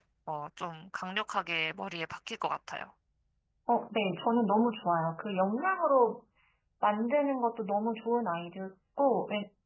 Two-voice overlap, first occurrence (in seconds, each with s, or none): none